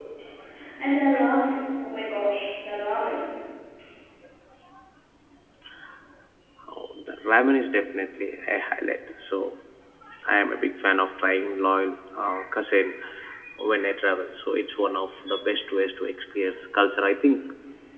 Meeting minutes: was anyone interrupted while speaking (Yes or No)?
No